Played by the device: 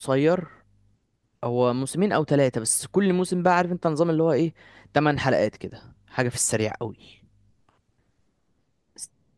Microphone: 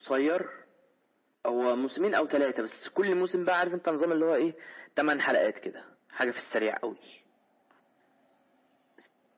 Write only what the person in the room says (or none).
none